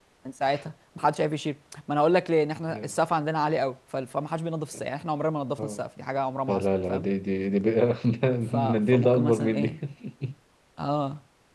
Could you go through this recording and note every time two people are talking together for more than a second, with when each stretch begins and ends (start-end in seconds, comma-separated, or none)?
8.5-9.8